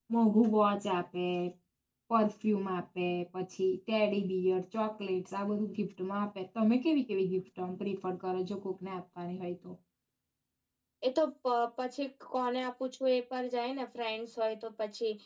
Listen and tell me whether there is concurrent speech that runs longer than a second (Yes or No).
No